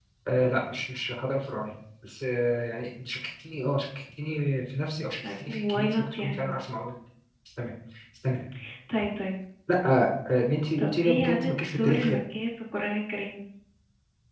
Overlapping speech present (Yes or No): Yes